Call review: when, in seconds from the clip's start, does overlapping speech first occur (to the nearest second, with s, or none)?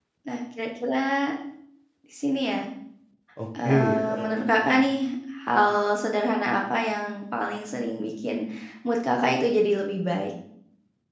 4 s